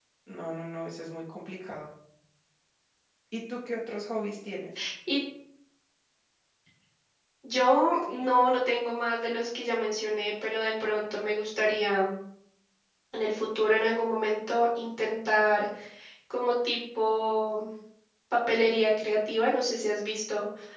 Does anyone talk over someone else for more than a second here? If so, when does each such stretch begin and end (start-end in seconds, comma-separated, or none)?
none